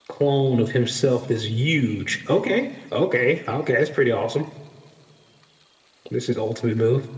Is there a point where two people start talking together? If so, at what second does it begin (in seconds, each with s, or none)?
none